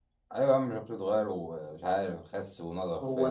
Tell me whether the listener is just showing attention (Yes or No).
No